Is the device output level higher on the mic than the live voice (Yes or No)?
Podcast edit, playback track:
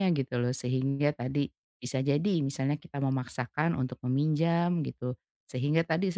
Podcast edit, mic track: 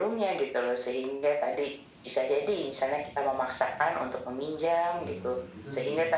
Yes